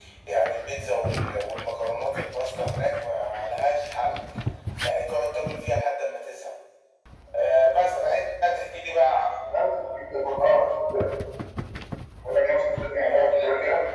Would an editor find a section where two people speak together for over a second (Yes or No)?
No